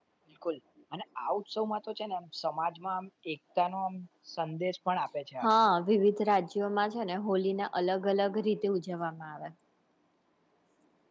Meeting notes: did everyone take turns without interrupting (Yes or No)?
Yes